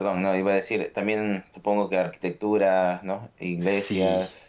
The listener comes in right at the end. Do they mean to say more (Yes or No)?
Yes